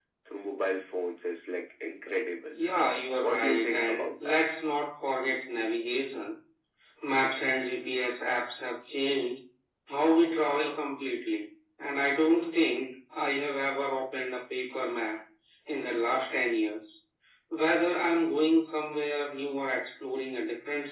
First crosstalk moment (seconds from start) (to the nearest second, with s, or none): 3 s